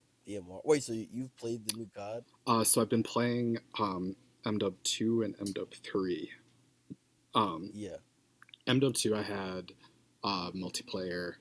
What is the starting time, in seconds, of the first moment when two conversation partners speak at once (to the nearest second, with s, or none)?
none